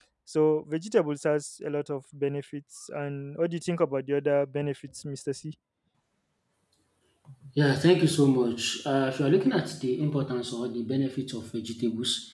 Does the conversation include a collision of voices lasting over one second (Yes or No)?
No